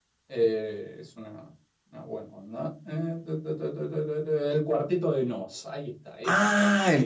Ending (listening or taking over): taking over